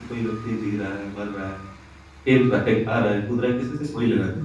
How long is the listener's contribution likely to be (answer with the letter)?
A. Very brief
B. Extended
B